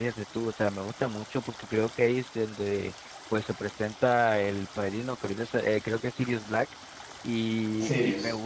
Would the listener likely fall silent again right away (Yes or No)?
Yes